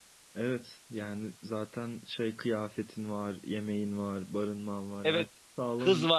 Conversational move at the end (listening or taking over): taking over